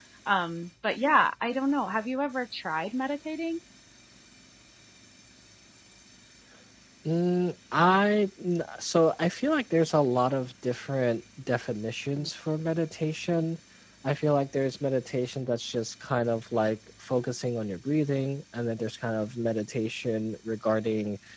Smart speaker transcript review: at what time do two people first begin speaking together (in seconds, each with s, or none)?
none